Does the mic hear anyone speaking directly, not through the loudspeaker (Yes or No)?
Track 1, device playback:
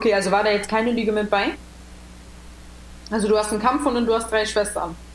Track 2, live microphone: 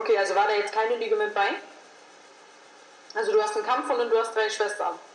No